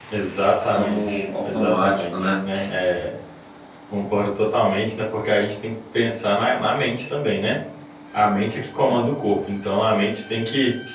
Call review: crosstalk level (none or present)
present